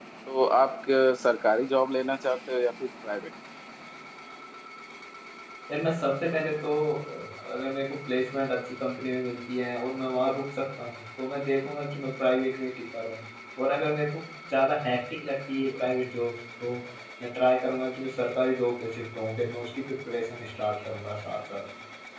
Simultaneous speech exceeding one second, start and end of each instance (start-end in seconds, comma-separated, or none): none